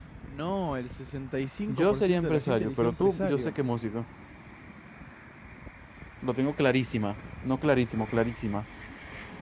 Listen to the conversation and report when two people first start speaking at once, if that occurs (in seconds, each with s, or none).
1.7 s